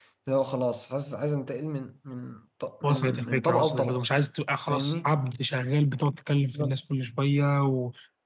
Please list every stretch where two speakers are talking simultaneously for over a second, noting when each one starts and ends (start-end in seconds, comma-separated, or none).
2.8-4.0